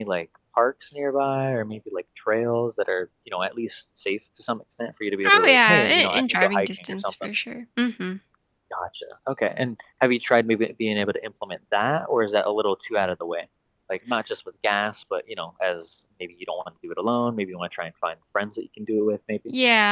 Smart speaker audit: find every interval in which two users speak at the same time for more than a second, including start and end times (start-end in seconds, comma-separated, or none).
5.2-7.1